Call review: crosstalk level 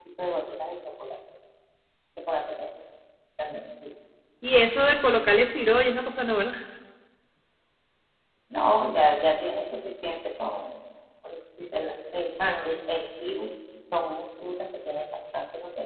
none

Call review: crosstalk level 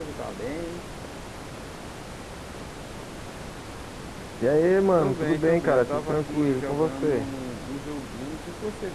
present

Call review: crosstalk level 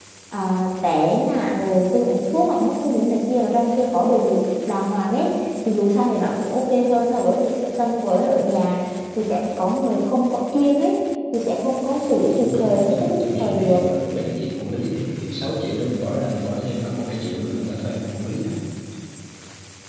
present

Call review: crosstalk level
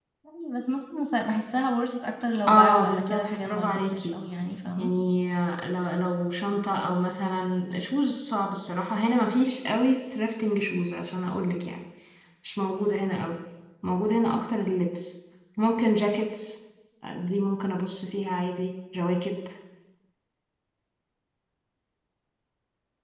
present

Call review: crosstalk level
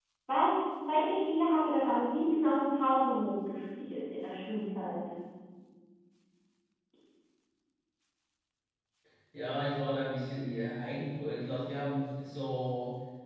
none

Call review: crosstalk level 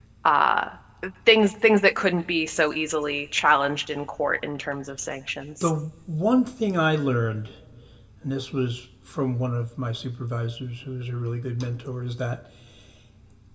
none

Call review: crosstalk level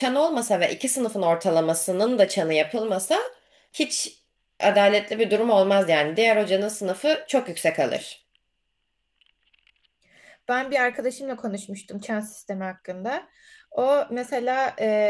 none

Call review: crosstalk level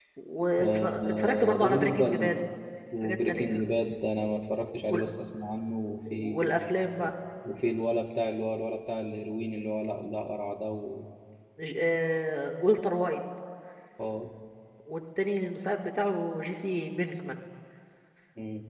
present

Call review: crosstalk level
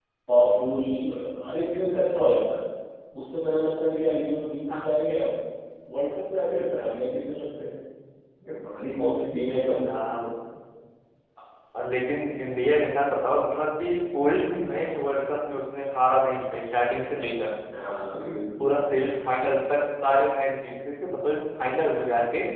none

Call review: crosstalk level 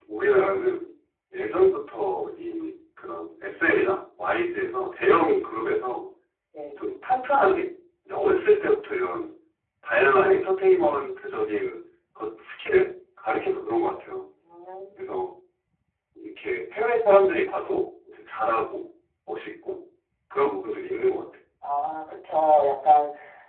none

